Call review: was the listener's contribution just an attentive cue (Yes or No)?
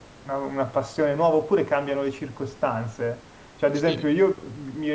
Yes